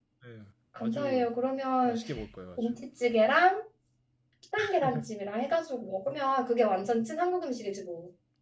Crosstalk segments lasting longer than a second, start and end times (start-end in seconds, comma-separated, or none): none